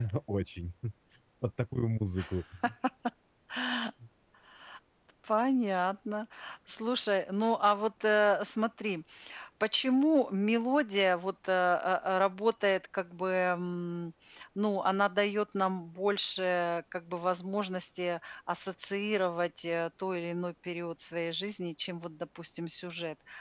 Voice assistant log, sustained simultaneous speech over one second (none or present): none